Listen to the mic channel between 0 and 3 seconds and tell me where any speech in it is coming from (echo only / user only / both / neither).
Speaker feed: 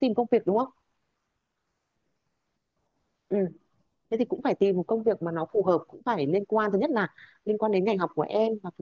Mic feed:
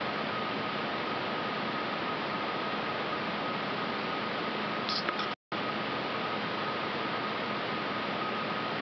neither